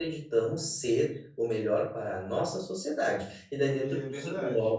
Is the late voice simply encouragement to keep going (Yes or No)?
Yes